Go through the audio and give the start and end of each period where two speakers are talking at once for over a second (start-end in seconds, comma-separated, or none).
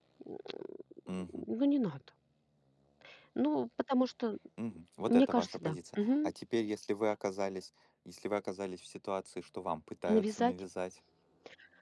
5.1-6.3